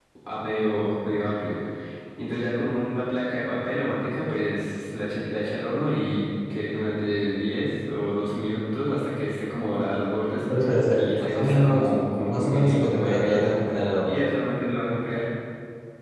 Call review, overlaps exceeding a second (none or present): present